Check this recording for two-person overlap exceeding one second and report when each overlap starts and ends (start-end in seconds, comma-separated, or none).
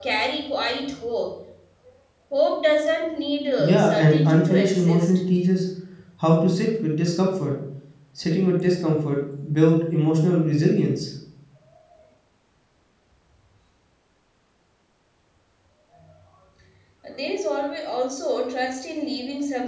3.6-5.2